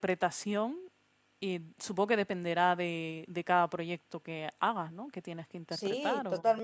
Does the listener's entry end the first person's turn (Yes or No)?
Yes